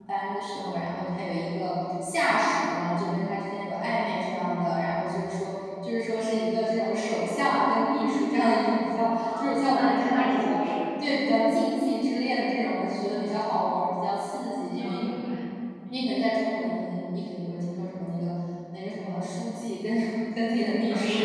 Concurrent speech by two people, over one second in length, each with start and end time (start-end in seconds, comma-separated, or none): 9.3-10.5